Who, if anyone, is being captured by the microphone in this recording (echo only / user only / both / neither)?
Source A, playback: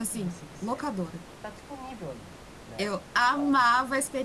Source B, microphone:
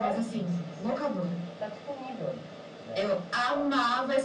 echo only